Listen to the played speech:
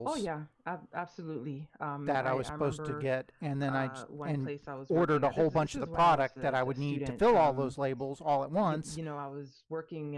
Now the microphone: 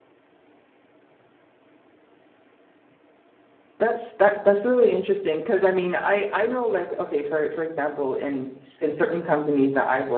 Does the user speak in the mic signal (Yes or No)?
Yes